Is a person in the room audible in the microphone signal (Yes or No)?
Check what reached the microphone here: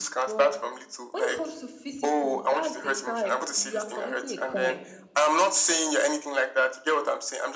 Yes